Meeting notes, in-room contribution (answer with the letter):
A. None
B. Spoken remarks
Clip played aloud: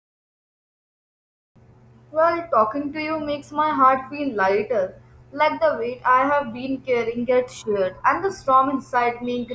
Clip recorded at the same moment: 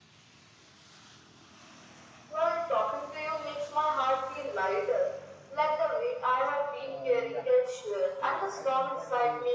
B